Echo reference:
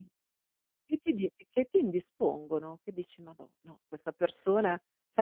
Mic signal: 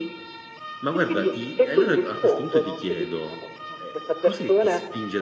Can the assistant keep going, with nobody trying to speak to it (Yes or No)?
No